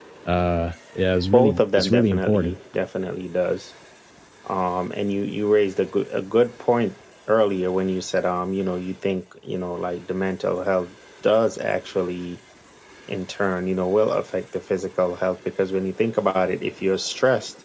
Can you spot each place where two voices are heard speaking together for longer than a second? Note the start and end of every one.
1.3-2.5

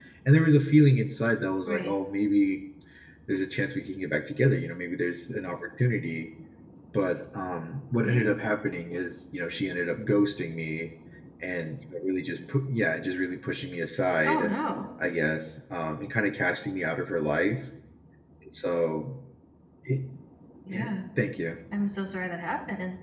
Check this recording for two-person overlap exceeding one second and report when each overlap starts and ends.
none

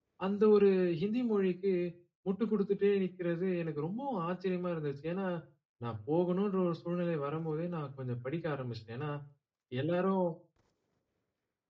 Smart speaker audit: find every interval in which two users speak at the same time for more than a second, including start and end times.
none

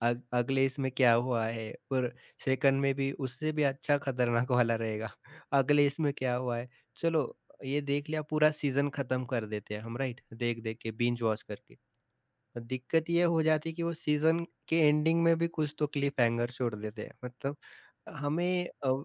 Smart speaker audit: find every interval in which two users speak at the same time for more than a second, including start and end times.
none

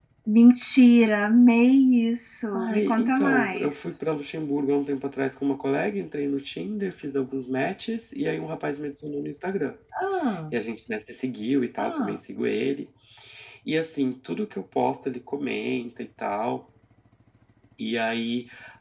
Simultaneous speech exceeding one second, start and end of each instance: 2.6-4.0

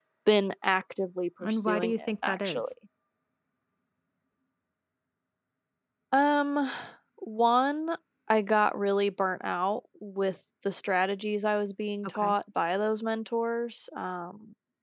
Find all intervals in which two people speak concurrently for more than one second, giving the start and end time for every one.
1.4-2.6

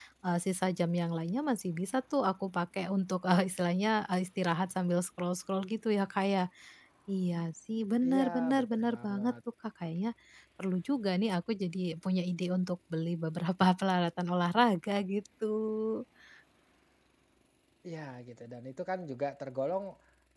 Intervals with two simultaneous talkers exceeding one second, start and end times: 8.1-9.3

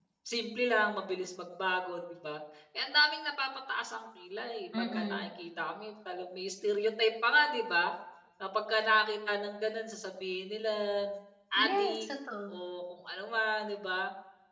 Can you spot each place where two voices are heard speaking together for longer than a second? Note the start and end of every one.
none

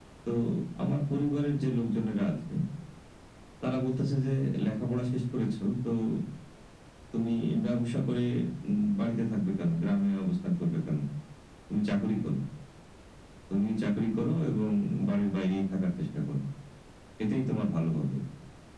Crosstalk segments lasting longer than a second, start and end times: none

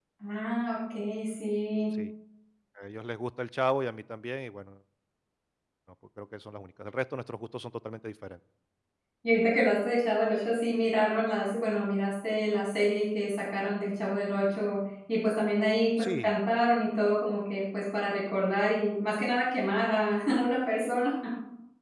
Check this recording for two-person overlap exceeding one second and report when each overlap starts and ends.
none

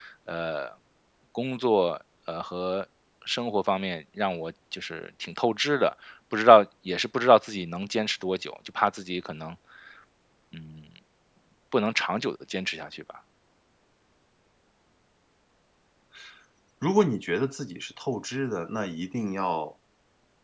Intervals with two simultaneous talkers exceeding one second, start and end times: none

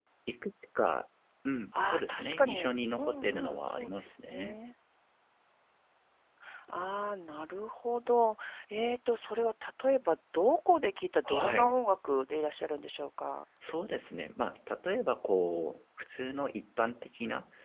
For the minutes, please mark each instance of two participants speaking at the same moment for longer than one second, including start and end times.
1.8-4.6

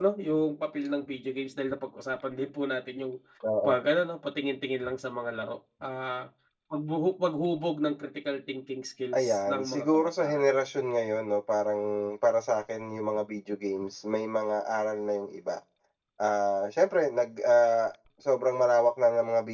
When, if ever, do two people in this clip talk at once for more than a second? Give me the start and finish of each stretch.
9.2-10.4

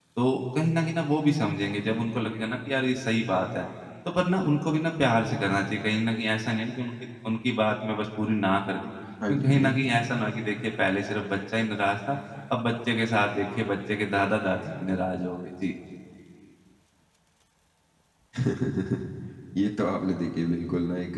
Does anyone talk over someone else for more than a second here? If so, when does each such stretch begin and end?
none

